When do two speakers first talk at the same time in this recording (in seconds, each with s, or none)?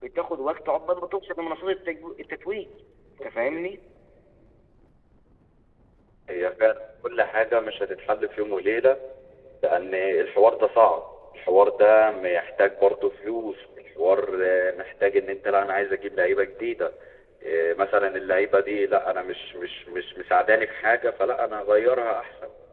none